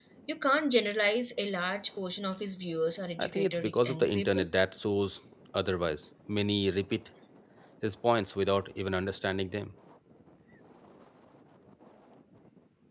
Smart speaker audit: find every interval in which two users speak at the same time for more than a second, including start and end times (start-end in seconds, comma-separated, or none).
3.2-4.5